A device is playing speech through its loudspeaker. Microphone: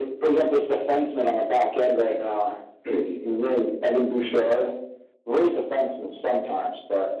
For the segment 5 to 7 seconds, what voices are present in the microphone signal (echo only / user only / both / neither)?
echo only